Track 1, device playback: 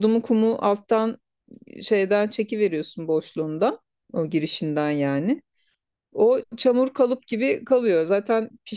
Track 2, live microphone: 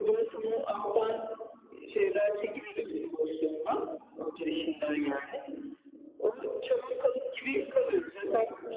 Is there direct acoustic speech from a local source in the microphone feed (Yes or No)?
No